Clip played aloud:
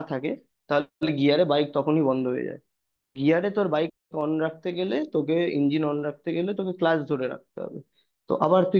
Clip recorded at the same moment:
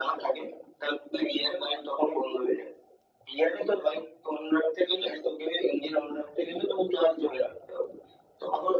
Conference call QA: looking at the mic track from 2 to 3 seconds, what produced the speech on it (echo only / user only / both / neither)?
echo only